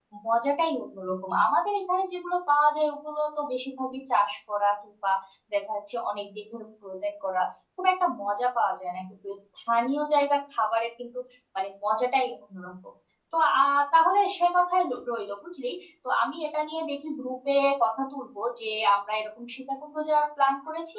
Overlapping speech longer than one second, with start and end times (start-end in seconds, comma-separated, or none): none